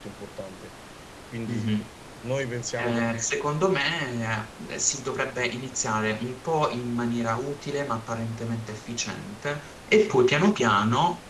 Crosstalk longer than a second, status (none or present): none